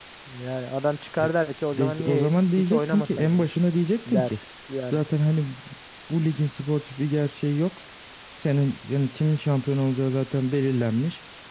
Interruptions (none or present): present